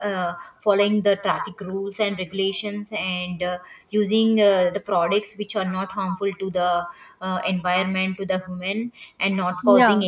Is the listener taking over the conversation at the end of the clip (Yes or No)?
No